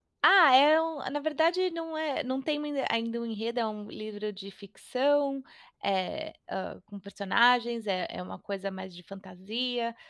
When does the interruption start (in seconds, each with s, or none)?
none